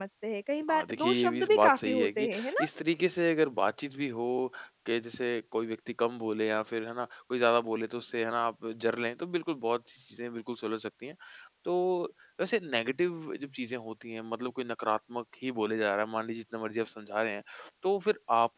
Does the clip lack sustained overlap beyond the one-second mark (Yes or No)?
No